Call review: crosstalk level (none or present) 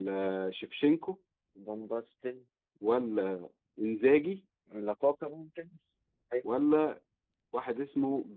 none